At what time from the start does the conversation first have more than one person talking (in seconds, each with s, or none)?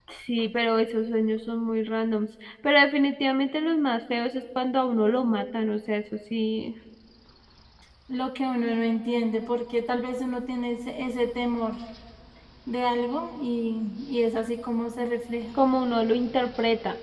none